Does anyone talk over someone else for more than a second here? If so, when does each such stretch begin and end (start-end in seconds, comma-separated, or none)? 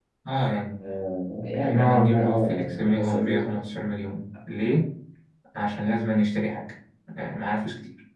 1.6-3.6